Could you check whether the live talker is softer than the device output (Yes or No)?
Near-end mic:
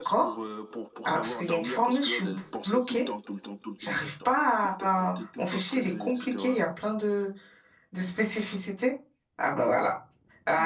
No